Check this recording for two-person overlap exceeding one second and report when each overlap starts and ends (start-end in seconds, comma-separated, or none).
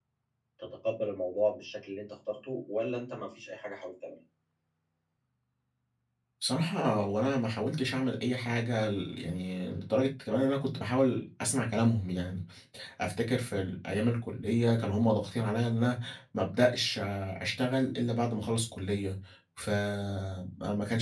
none